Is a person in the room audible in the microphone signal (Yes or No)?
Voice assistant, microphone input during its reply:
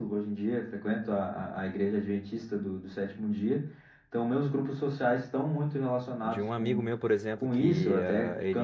Yes